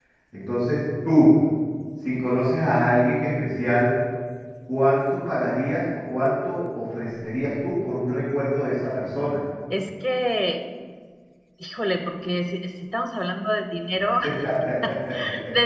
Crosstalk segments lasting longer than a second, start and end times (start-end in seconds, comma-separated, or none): none